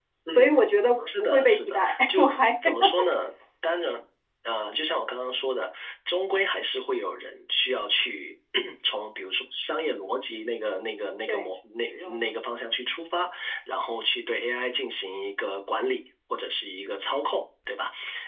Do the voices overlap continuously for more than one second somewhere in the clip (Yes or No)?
Yes